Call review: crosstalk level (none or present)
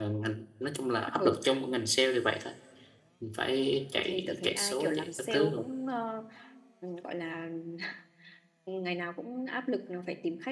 present